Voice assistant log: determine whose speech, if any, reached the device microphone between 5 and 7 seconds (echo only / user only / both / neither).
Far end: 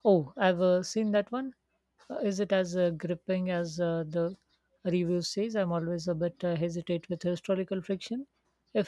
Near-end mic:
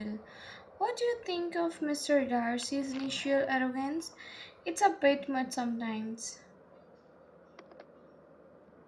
user only